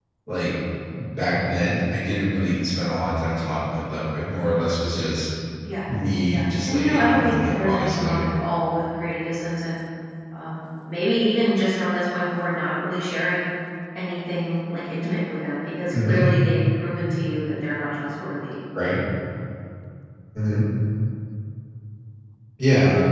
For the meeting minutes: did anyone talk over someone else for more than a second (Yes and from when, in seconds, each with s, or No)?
Yes, from 6.3 s